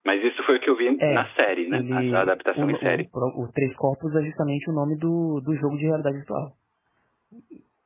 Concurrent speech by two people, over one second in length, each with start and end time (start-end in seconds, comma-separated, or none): 1.7-3.0